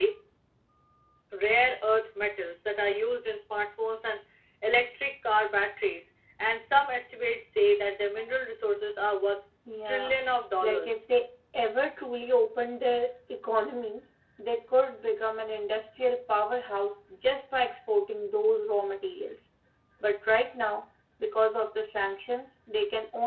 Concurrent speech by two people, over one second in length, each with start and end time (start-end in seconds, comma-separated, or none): none